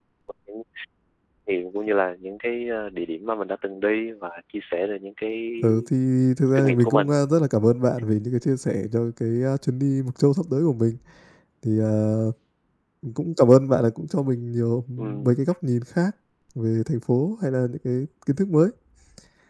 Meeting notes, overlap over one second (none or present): none